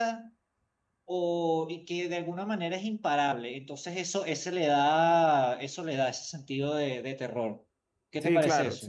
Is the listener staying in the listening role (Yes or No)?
No